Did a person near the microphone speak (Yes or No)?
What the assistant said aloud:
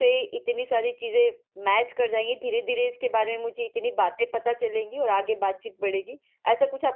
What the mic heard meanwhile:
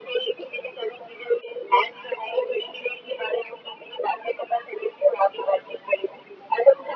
No